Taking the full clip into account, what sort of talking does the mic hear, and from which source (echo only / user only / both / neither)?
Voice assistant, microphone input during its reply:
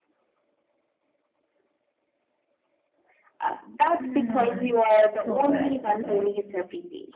both